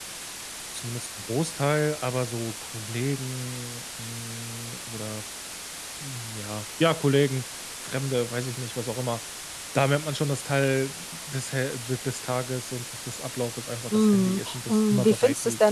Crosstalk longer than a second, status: present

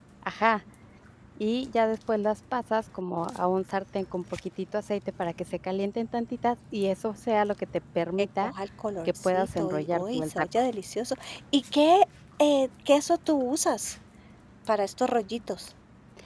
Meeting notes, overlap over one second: present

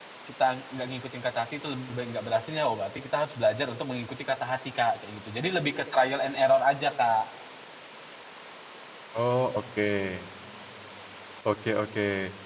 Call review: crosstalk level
none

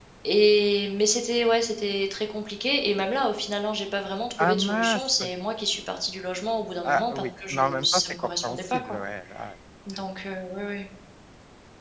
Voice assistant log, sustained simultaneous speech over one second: present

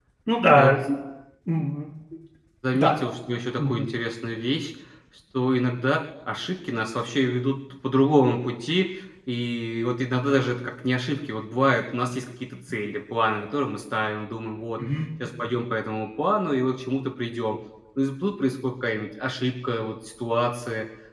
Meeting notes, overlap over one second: none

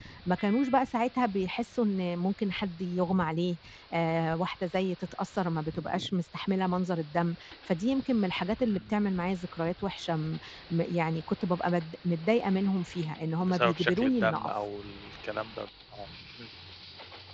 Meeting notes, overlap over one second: present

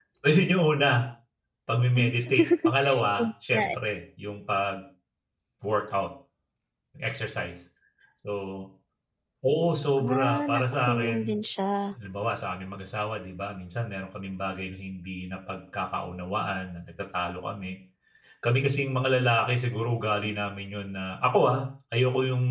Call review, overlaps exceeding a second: present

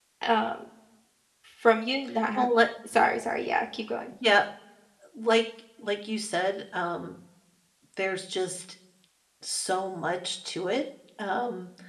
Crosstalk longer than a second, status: none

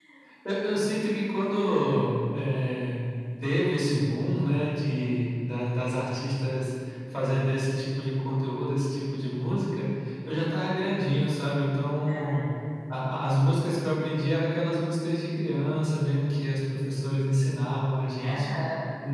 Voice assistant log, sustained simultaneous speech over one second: none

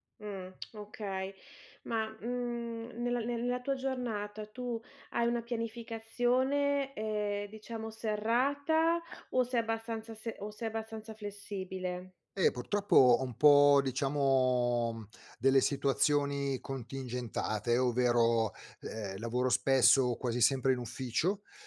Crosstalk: none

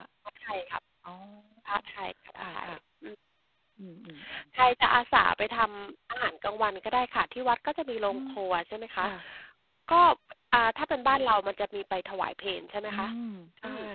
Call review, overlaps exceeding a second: none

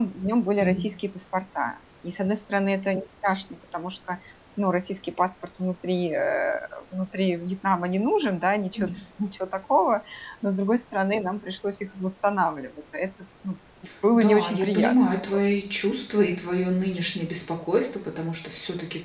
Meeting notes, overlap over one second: present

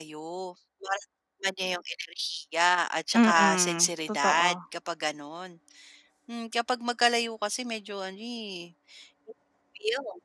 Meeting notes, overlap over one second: present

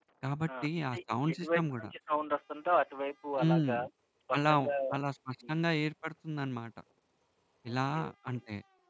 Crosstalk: present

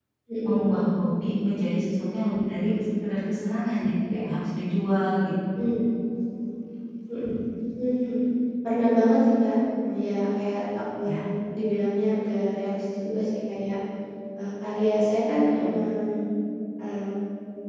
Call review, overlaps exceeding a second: none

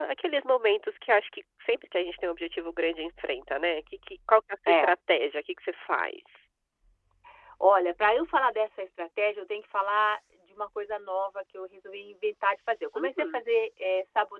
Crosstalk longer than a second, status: none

